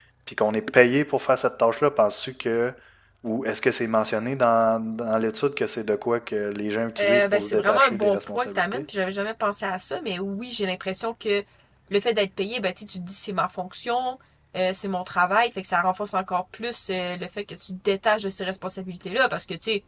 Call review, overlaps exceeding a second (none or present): present